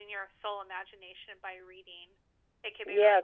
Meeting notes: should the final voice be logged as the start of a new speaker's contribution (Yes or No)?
Yes